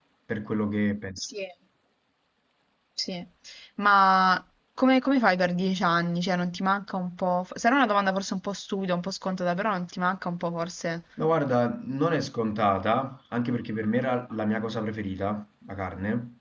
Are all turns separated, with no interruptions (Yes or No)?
Yes